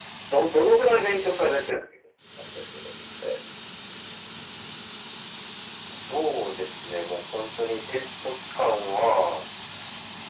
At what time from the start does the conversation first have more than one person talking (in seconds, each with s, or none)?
none